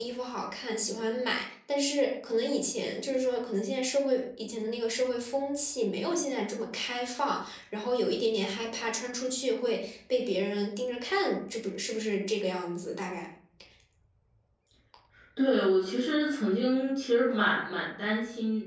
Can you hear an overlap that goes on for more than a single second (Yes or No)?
No